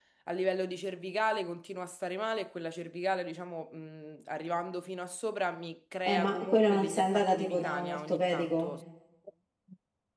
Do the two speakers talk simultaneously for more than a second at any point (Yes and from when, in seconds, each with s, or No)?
Yes, from 6.1 s